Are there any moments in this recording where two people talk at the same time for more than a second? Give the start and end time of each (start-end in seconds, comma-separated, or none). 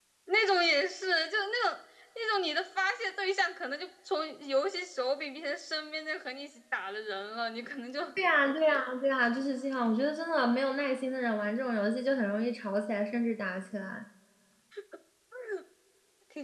none